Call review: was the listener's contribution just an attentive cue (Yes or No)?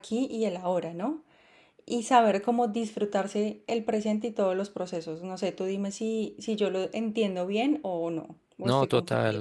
No